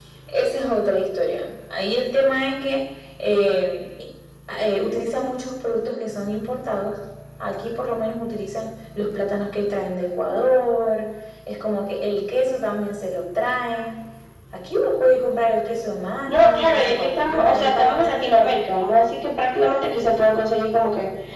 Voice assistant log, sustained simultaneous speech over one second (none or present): present